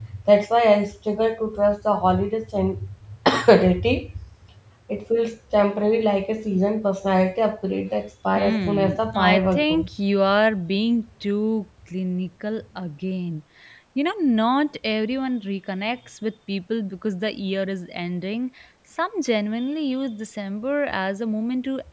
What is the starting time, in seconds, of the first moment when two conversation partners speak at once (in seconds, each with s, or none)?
8.4 s